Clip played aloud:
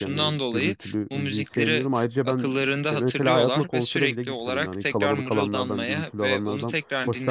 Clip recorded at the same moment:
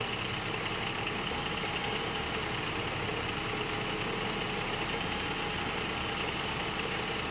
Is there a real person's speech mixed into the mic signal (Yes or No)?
No